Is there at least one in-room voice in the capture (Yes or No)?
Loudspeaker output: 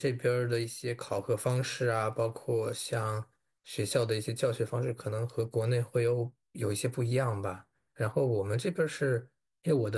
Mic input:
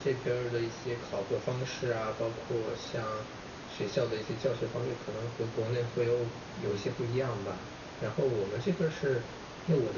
No